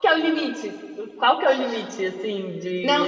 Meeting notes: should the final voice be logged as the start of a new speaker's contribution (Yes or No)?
Yes